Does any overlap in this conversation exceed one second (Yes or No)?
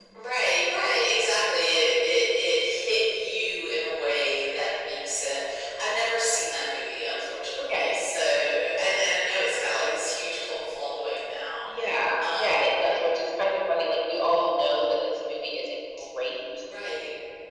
No